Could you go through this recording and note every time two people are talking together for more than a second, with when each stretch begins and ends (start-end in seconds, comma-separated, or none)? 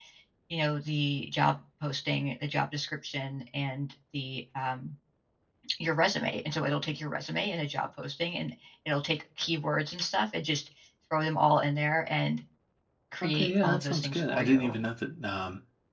13.2-14.7